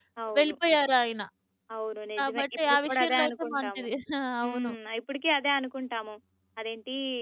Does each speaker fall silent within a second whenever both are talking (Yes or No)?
No